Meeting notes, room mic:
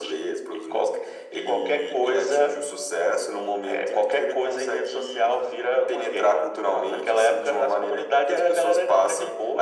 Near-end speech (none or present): none